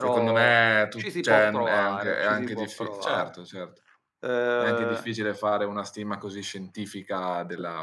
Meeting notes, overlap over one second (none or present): present